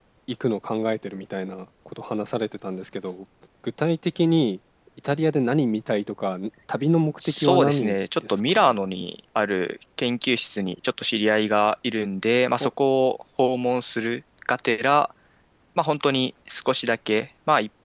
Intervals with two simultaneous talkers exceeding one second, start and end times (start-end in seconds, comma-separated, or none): 7.2-8.8